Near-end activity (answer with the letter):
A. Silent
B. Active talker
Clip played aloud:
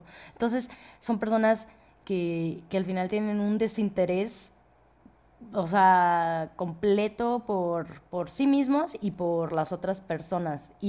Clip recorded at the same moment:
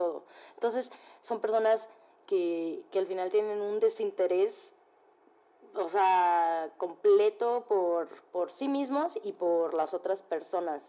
A